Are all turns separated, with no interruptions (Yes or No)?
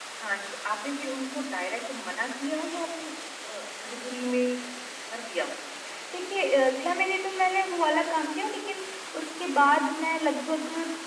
Yes